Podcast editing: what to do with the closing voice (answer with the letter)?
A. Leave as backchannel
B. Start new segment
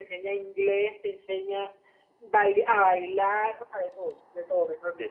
B